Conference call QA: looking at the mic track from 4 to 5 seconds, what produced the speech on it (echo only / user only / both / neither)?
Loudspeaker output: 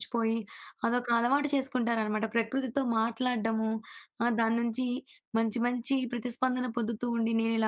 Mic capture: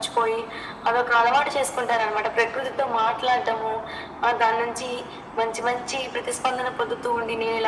echo only